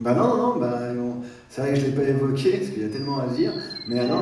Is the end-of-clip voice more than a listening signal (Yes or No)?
No